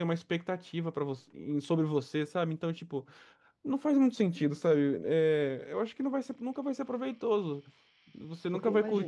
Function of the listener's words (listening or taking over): listening